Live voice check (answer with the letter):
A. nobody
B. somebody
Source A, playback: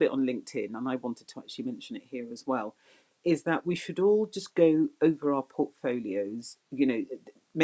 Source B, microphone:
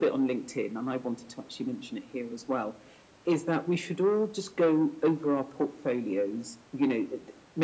A